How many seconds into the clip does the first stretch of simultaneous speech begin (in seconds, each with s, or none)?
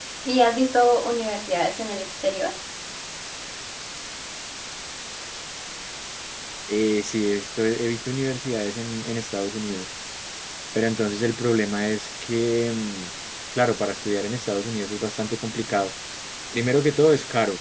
none